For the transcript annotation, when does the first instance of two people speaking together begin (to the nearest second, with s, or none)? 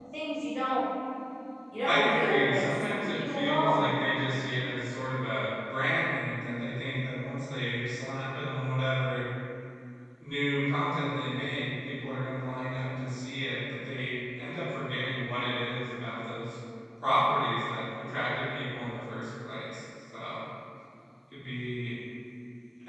2 s